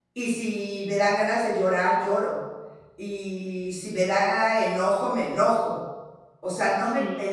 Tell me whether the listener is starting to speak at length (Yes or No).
No